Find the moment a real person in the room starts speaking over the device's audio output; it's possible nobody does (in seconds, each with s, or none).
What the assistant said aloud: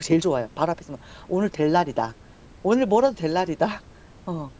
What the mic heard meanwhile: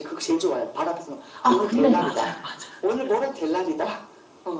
1.4 s